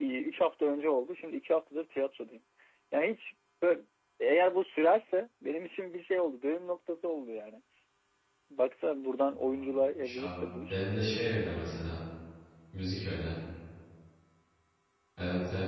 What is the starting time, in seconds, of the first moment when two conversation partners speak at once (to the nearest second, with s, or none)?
9 s